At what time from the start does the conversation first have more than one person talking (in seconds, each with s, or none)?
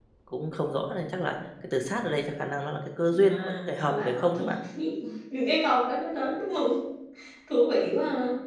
3.1 s